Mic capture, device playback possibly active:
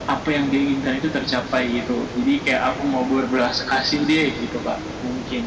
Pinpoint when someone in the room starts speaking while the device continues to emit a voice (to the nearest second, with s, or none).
none